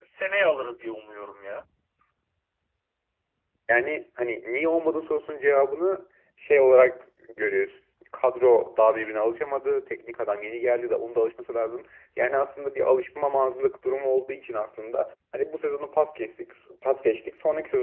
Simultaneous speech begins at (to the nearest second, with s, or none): none